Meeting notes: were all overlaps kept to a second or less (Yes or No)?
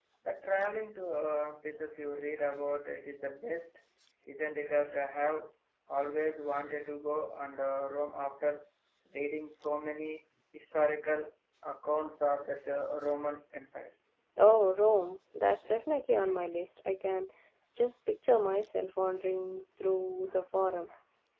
Yes